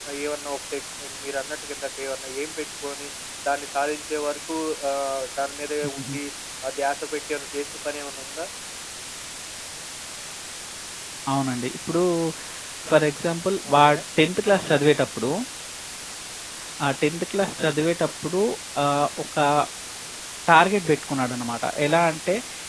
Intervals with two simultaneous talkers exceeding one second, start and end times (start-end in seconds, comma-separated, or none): none